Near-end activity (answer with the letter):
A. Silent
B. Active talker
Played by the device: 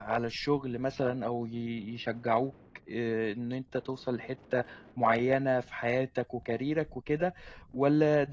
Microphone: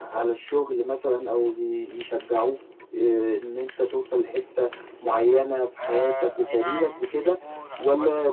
B